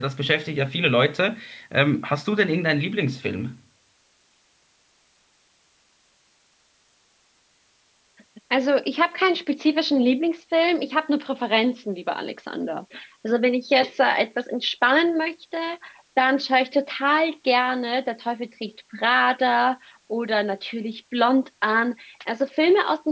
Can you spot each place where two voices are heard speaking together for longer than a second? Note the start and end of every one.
none

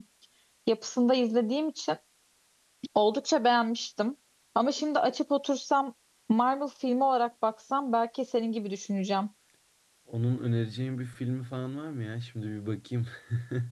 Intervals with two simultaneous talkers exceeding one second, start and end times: none

